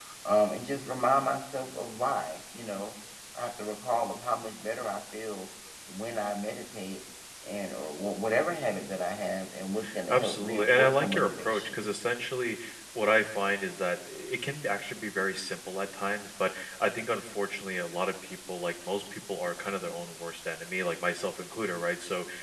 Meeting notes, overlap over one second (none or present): present